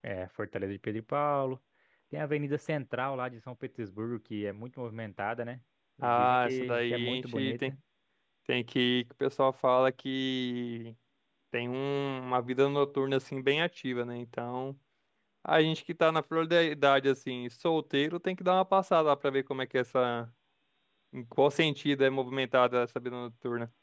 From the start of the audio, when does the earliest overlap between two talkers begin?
6.0 s

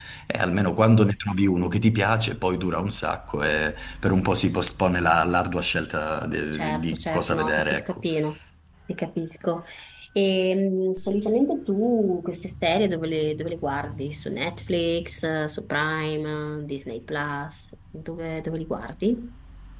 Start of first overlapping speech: 6.5 s

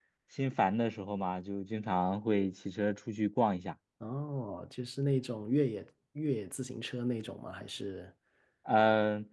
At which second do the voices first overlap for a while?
none

